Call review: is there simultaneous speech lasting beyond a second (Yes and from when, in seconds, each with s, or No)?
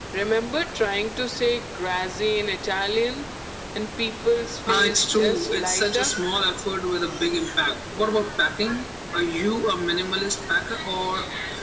Yes, from 4.7 s